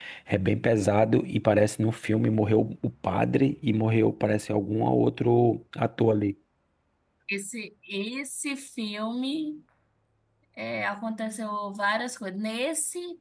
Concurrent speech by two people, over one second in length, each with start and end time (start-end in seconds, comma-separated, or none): none